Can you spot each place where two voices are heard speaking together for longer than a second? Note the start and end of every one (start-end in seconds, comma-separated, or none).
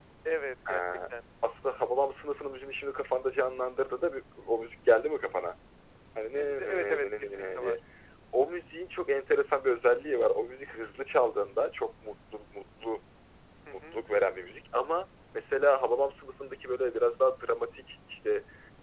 6.4-7.8